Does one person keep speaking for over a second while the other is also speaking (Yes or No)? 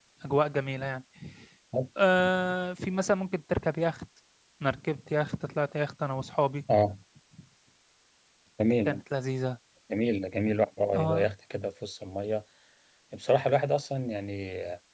No